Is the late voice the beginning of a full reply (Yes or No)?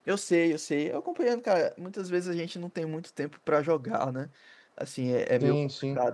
No